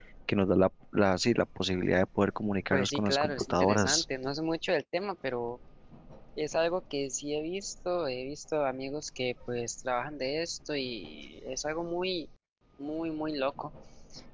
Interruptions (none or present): present